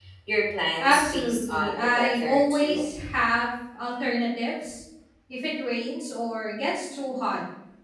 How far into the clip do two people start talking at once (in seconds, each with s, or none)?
0.8 s